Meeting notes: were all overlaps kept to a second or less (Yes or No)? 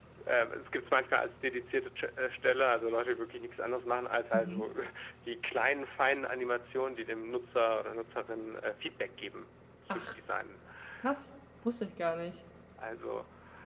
Yes